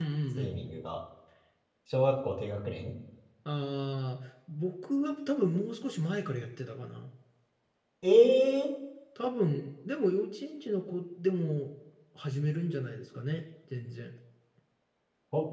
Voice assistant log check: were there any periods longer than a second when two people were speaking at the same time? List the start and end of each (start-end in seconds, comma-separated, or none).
none